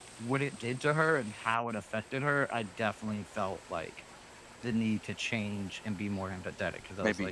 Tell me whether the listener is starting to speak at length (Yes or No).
Yes